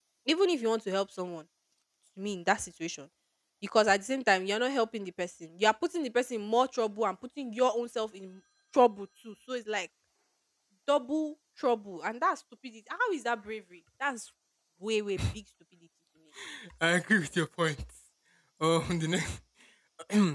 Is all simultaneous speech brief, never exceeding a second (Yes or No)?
Yes